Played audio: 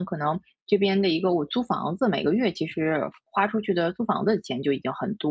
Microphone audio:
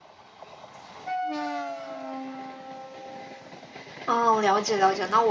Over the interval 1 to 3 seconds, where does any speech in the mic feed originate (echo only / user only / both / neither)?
neither